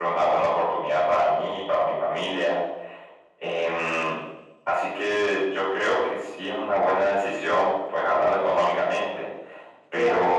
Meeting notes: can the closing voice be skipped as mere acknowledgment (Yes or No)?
No